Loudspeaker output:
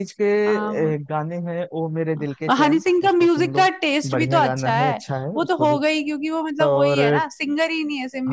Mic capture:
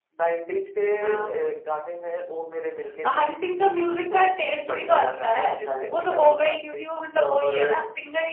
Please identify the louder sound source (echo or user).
echo